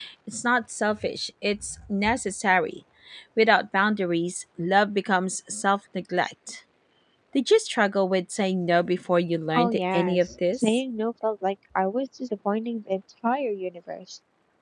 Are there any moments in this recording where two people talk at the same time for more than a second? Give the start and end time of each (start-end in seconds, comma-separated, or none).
9.6-10.8